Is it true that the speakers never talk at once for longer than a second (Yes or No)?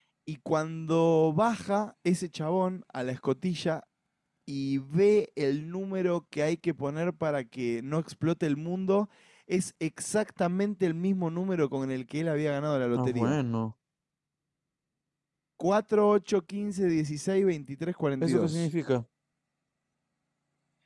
Yes